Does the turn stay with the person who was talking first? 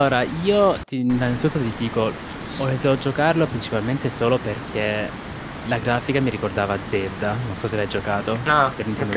No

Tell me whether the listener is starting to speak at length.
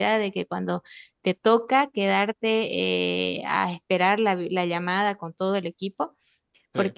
No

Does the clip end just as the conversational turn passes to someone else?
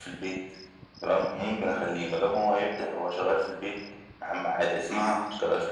No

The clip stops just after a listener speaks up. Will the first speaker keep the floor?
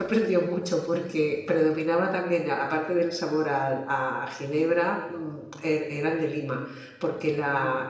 Yes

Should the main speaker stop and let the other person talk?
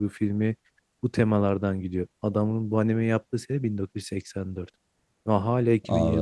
No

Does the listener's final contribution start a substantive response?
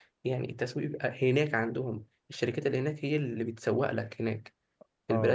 Yes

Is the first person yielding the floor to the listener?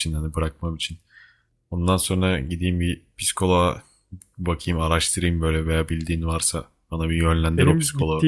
Yes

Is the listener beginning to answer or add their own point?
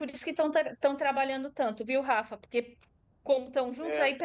No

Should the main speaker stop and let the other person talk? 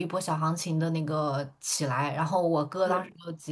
No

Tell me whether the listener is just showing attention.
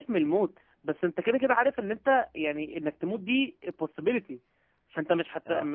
Yes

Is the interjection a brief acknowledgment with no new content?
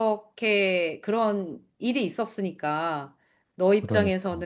Yes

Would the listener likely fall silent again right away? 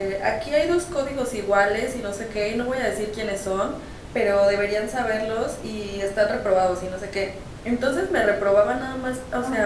Yes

